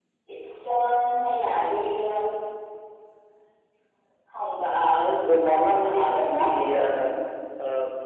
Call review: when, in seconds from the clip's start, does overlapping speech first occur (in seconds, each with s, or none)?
5.4 s